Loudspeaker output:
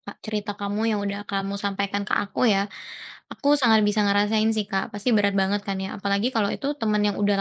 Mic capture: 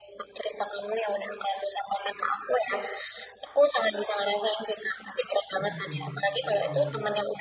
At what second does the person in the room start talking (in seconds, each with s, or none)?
5.5 s